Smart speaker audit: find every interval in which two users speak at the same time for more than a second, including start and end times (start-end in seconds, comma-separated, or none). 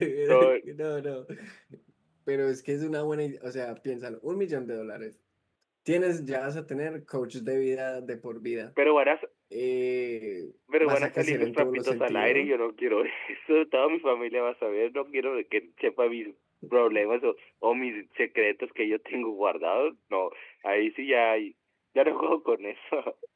10.8-12.5